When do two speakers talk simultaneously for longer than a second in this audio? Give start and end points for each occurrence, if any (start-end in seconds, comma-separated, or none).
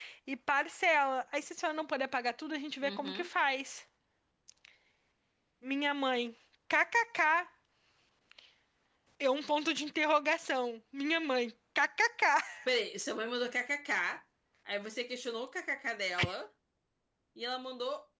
none